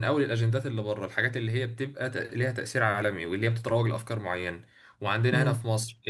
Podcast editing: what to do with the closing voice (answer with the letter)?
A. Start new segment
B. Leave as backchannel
B